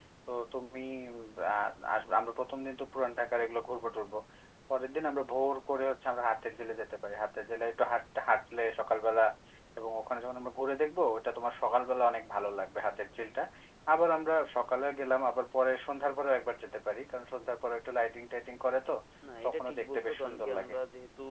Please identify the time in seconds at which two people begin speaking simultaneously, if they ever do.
19 s

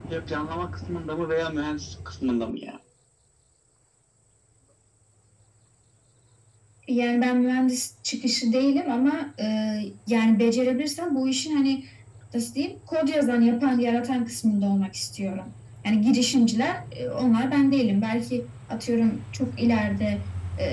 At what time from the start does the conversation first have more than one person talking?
none

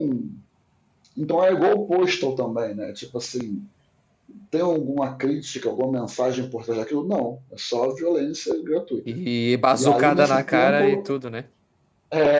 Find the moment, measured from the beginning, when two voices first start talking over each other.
10 s

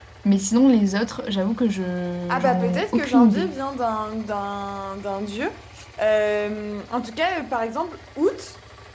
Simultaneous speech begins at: 2 s

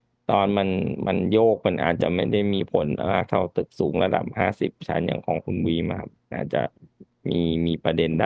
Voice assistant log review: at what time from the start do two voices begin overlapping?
none

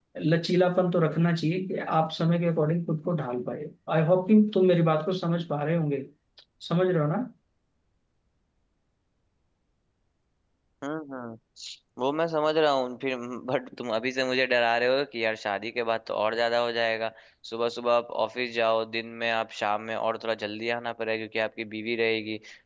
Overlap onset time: none

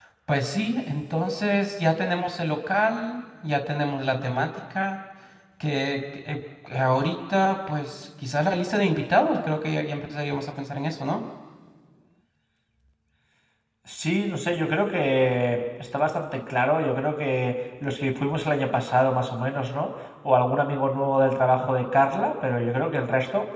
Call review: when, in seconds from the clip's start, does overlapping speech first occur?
none

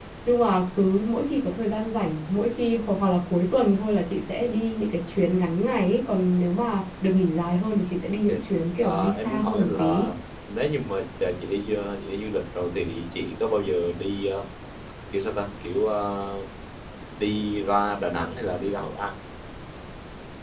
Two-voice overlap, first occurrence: 9 s

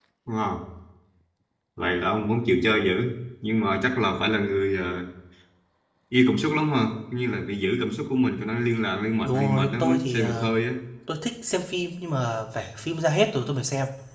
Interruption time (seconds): 9 s

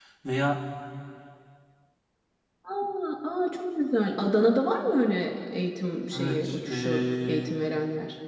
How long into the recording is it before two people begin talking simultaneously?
6 s

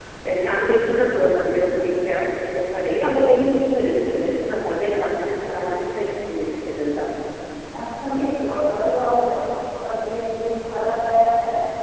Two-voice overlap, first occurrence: none

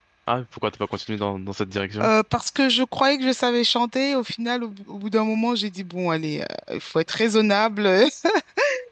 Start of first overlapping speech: none

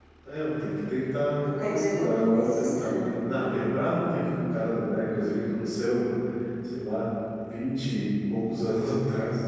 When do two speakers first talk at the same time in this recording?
1 s

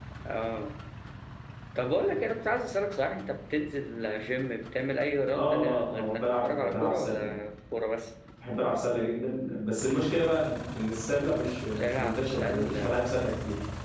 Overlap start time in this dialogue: 5 s

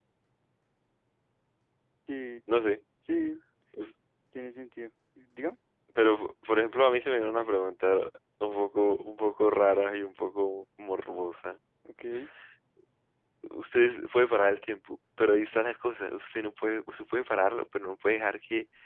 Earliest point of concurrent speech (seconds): none

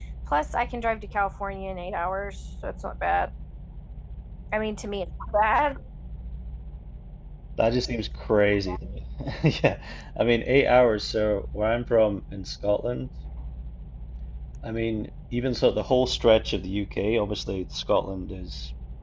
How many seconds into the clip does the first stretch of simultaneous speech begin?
none

